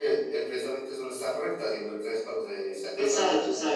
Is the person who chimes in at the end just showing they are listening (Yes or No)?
No